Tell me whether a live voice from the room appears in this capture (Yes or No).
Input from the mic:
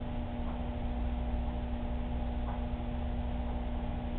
No